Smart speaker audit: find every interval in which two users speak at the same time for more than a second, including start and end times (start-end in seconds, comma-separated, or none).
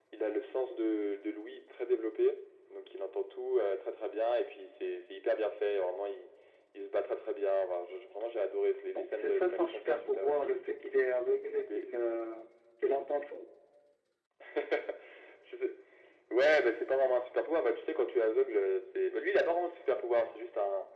8.9-10.5